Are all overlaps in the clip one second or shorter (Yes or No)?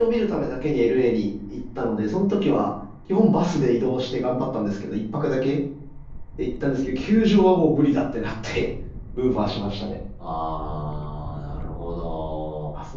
Yes